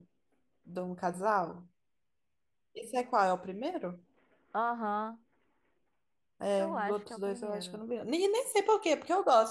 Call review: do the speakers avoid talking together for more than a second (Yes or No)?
No